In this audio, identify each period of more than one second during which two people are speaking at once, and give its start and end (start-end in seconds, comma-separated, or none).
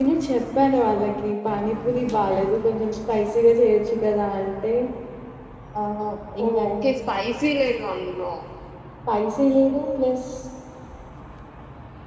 none